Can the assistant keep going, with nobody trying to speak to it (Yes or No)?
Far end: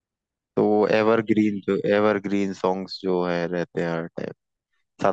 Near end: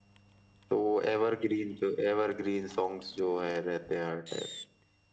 Yes